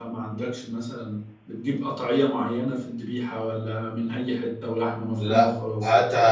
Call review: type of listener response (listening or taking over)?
taking over